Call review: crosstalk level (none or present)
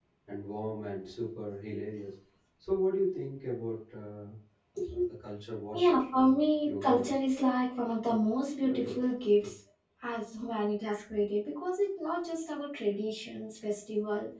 present